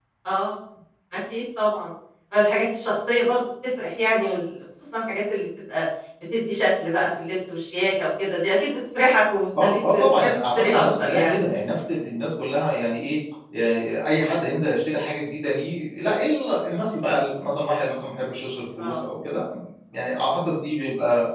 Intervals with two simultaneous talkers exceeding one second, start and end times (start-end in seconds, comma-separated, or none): 9.6-11.3